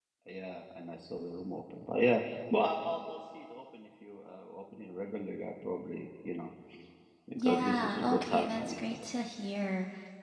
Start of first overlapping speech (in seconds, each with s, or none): 7.4 s